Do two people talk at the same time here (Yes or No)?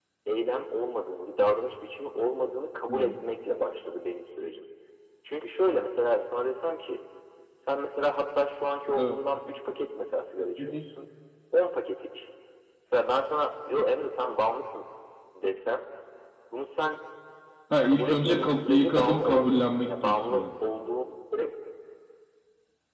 Yes